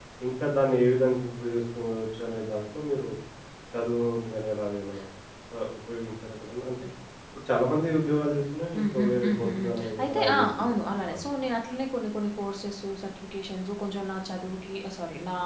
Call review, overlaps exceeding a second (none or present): present